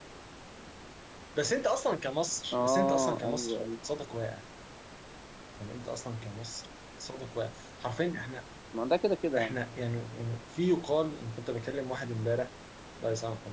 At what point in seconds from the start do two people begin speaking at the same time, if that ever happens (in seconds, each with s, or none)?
2.5 s